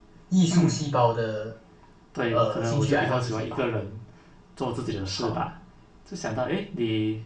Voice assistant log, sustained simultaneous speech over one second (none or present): present